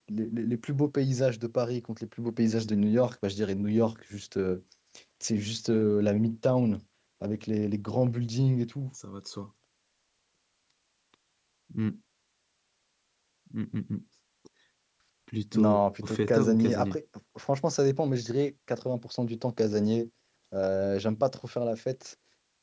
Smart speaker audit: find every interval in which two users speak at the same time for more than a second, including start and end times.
15.5-17.0

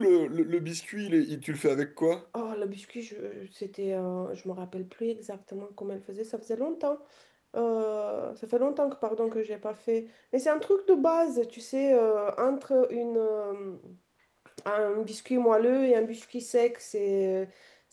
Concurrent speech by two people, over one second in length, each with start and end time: none

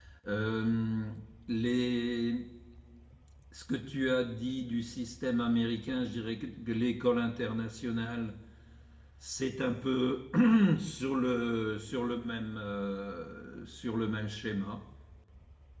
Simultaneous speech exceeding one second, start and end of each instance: none

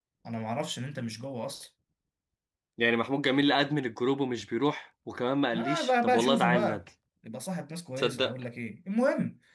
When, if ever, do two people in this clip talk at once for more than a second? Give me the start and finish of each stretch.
5.5-6.8

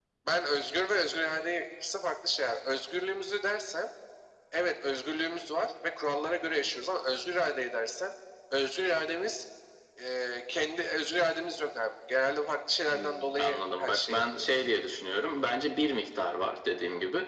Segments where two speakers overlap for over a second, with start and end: 12.9-14.7

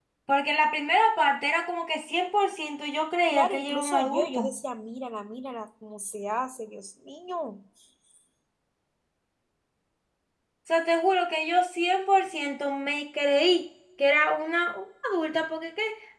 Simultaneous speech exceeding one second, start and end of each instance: 3.3-4.5

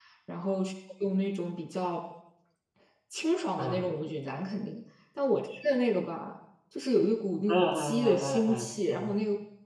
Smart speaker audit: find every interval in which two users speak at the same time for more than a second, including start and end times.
7.5-9.1

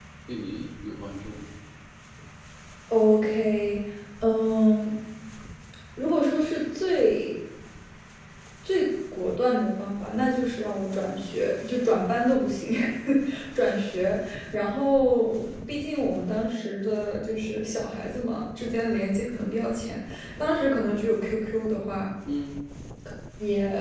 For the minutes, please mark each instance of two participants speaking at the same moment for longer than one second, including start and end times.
none

